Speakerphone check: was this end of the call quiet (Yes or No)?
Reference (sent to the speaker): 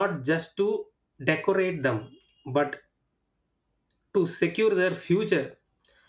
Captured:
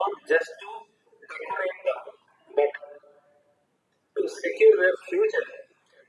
Yes